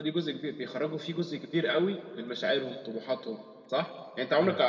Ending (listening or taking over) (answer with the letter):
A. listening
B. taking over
A